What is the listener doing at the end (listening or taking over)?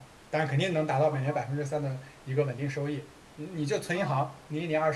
listening